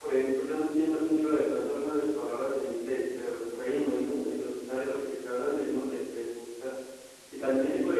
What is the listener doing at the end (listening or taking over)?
listening